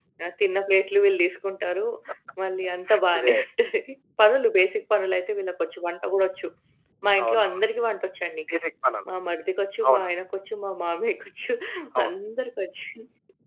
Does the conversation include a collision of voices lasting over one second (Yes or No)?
No